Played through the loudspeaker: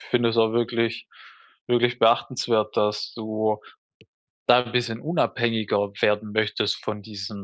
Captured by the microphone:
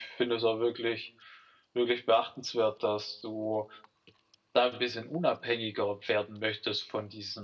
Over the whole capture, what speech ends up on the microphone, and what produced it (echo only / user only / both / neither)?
echo only